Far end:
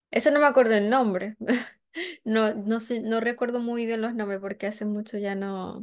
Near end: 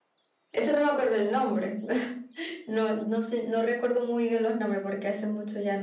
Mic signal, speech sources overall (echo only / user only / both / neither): echo only